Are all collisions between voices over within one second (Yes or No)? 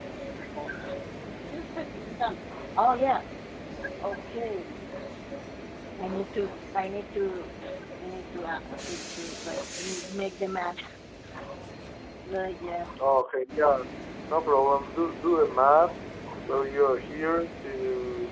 Yes